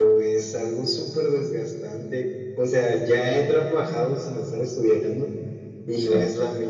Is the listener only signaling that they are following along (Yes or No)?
Yes